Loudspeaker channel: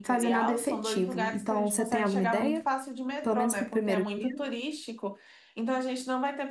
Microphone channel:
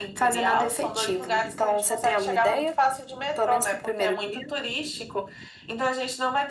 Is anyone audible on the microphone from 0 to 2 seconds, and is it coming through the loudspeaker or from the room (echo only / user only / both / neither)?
echo only